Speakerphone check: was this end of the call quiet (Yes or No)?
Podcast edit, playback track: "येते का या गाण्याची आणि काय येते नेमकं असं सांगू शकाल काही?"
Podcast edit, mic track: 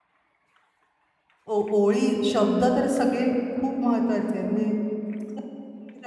No